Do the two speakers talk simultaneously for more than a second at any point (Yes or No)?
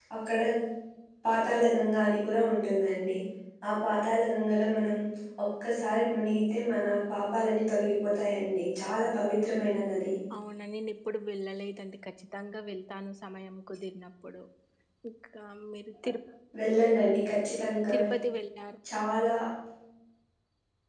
No